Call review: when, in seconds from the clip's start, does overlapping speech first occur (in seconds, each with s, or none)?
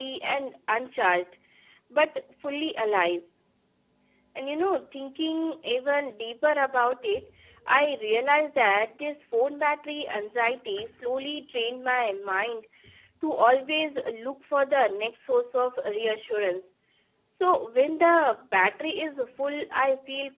none